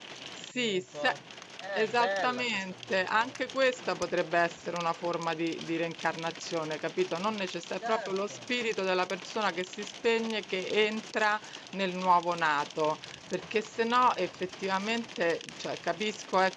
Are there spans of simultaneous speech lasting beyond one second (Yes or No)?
Yes